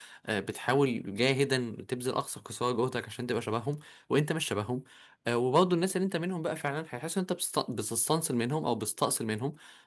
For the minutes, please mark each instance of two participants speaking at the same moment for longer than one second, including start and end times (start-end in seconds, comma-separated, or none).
none